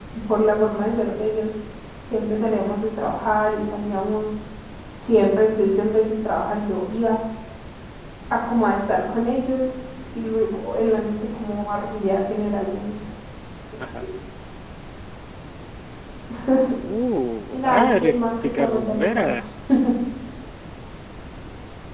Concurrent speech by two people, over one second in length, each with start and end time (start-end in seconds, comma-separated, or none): 17.6-19.3